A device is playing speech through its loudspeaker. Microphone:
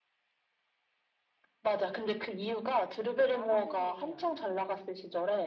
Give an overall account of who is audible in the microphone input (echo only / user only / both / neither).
both